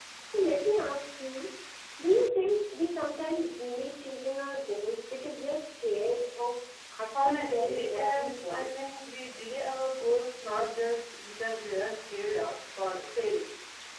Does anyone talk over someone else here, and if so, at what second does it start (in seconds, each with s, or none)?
7.2 s